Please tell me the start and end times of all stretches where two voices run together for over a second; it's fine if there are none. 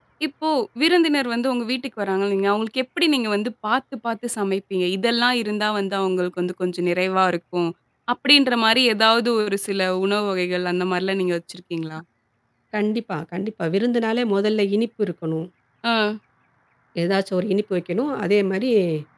none

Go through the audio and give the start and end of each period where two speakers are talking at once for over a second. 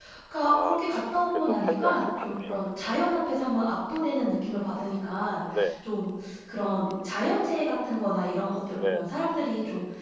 1.3-3.0

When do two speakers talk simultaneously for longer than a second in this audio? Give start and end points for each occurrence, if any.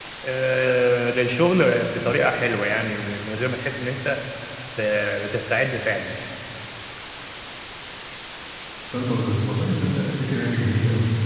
none

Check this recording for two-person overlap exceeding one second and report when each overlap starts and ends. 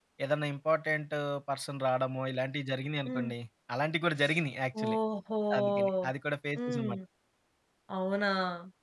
none

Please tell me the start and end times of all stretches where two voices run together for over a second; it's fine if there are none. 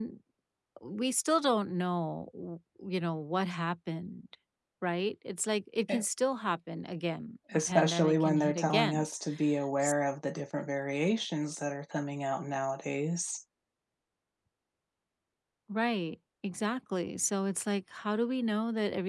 7.5-9.1

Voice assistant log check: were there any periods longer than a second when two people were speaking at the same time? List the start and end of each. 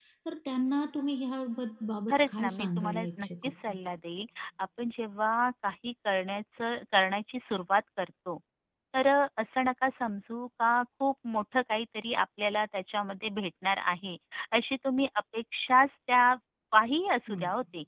2.1-3.5

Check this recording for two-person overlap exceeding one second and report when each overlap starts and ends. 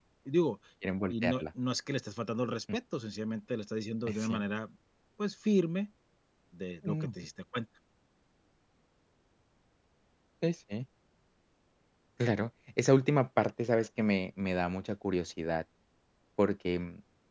none

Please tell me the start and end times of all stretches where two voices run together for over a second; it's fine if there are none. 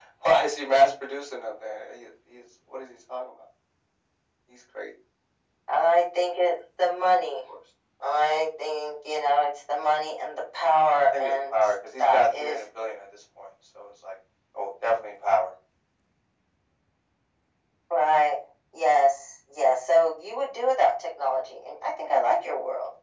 11.0-12.6

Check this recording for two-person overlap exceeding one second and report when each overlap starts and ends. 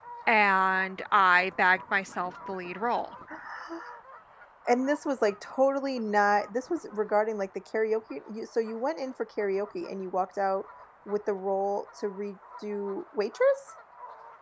none

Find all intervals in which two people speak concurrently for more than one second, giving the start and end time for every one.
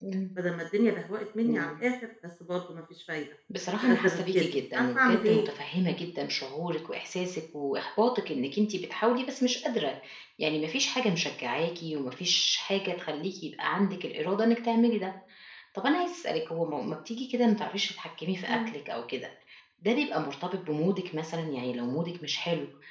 3.8-5.5

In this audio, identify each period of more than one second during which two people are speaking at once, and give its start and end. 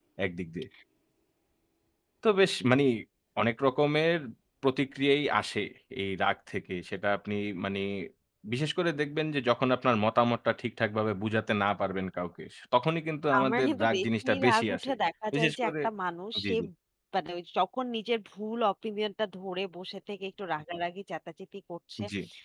13.4-14.9

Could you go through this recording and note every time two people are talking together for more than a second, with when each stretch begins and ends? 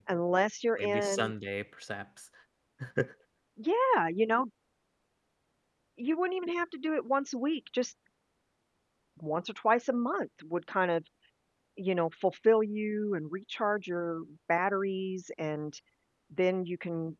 none

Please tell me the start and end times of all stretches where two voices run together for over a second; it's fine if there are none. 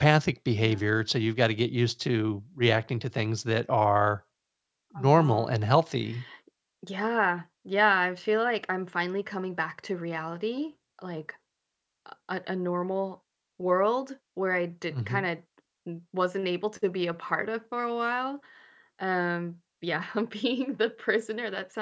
none

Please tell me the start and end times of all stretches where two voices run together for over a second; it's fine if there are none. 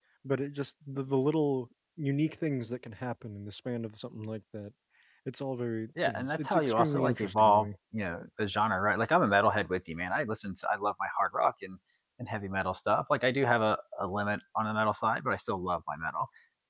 6.1-7.7

